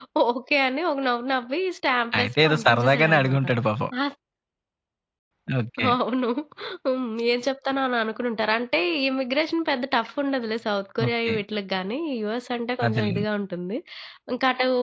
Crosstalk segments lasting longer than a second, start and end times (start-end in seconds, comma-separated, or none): 2.2-3.4